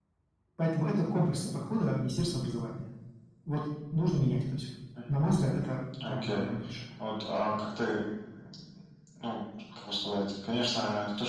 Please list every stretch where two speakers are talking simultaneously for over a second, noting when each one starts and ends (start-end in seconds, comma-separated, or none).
none